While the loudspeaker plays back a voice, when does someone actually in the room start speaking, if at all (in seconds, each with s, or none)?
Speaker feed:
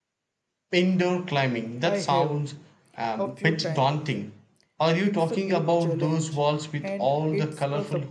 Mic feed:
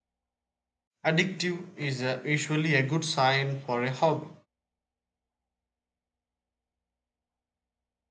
1.0 s